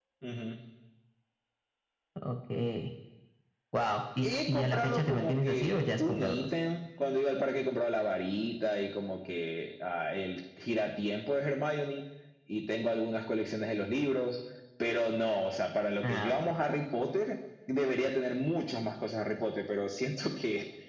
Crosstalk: present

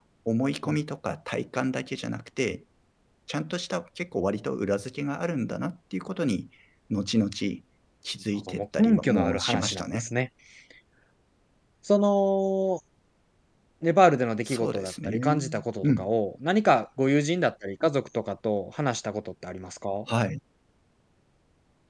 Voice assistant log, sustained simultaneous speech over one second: present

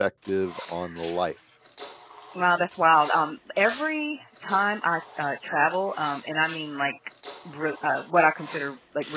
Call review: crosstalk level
none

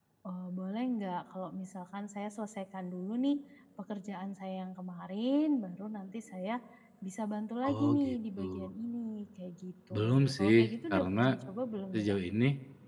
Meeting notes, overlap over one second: present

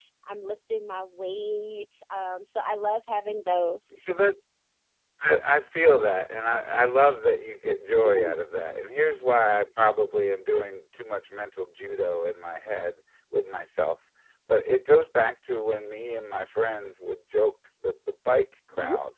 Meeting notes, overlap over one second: none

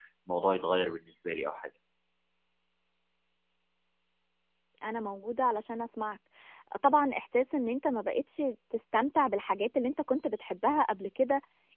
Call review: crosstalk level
none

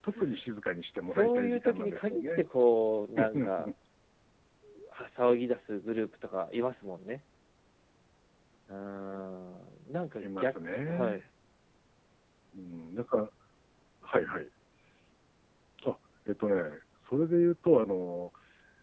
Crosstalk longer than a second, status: present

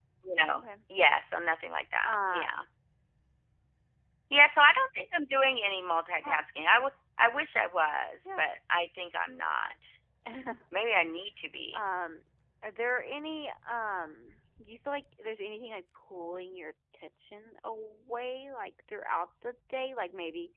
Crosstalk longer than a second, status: none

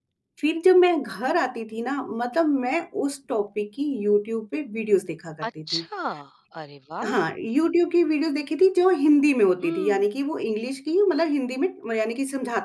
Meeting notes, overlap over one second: none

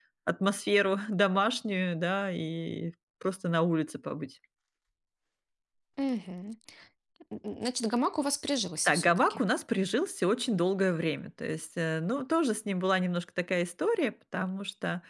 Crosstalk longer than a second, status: none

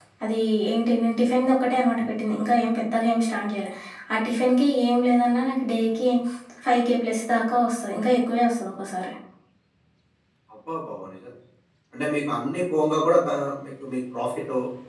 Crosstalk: none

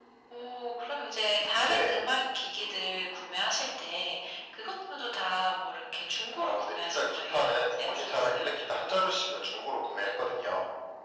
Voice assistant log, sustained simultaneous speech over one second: present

